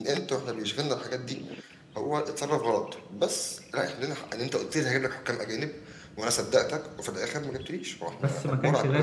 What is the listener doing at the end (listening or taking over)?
taking over